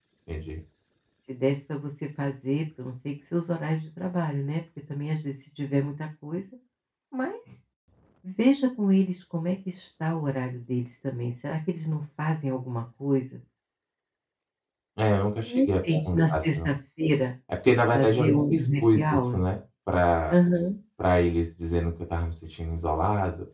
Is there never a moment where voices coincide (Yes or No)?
No